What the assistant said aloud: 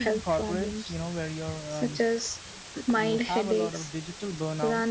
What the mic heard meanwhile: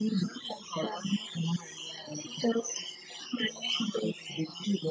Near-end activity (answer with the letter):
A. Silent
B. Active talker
A